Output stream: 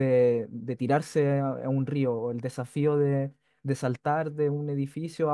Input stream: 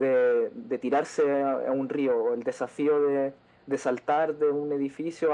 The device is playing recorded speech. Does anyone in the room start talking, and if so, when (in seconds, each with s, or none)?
none